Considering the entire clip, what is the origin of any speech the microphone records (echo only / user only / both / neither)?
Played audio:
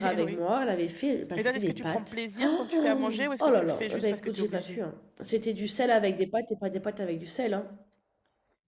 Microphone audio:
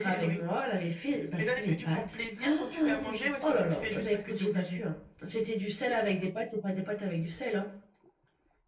echo only